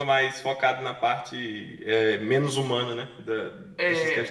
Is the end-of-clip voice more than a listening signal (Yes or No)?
Yes